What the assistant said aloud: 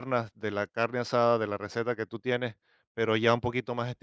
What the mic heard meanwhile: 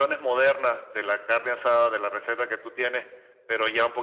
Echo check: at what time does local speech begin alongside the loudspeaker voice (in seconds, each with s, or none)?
none